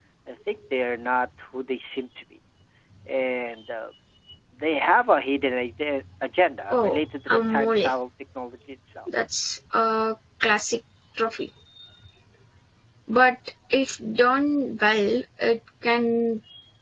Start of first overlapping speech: 7 s

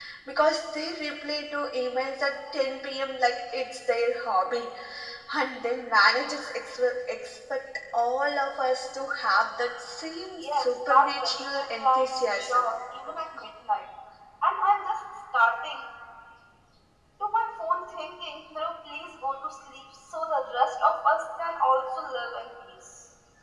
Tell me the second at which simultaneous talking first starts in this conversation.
10 s

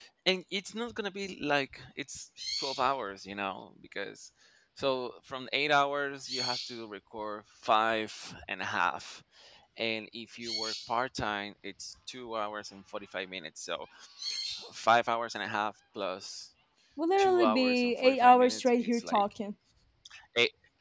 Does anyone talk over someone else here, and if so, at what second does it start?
17 s

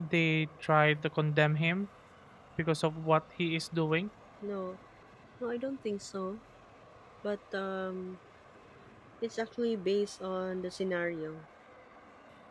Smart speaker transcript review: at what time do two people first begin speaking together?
none

